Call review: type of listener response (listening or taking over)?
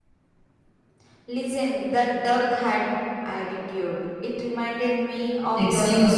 taking over